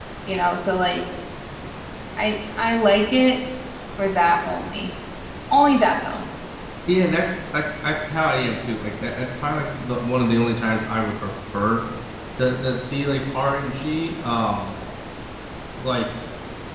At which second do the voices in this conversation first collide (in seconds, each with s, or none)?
none